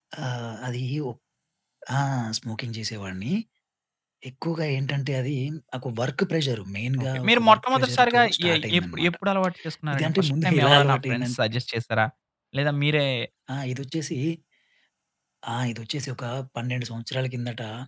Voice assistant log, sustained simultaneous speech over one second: present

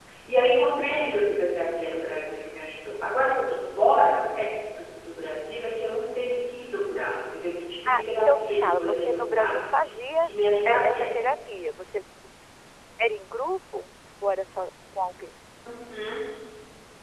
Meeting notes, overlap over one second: present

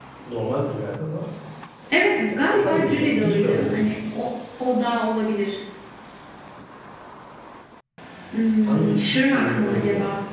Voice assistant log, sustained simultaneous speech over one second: present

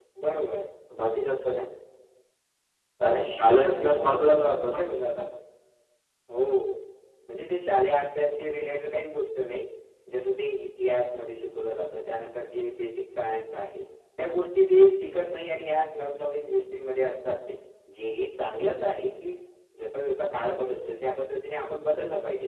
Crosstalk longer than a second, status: present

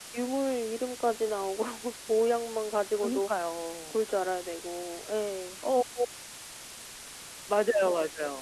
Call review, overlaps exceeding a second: none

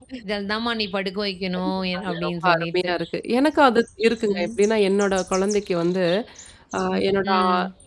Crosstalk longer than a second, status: present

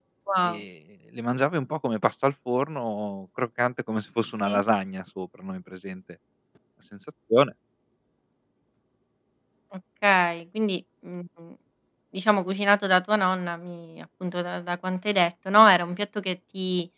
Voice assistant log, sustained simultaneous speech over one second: none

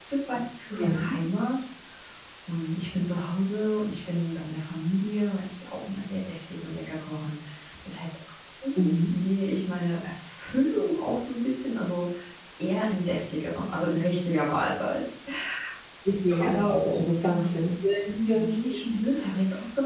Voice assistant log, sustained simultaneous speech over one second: none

